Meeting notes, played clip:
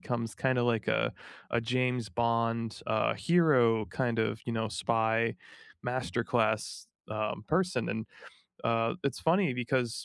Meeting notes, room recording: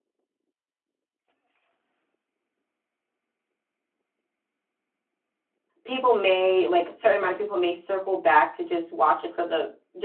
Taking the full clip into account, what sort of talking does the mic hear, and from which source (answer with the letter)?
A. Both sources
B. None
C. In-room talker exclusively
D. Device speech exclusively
C